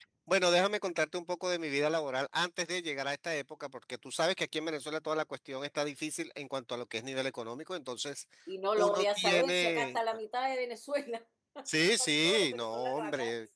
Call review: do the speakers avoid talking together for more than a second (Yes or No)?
No